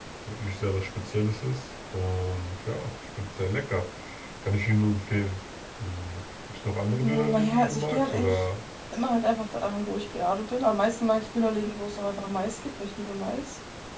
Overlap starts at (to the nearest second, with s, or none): 7 s